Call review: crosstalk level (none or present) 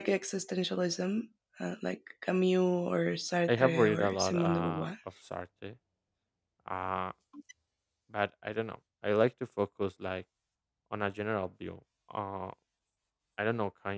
present